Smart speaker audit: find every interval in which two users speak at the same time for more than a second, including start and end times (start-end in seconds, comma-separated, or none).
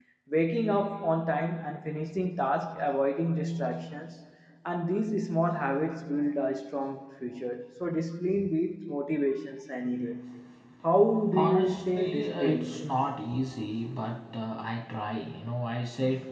11.3-12.7